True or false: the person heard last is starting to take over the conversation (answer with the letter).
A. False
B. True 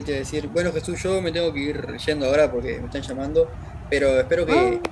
A